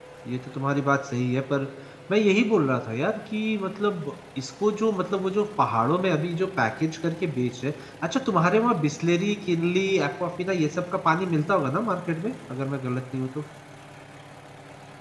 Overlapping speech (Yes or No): No